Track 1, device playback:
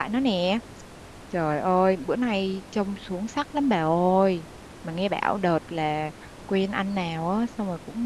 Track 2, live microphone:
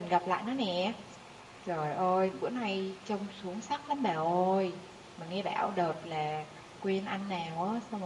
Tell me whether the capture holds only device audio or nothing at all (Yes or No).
Yes